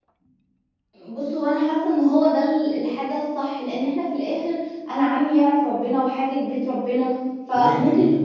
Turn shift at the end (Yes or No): No